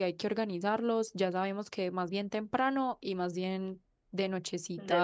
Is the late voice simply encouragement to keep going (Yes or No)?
Yes